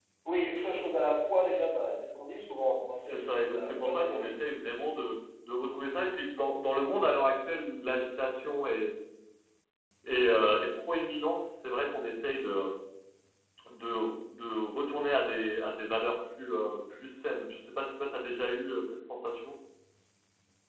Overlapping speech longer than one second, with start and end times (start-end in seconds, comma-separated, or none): 3.1-4.3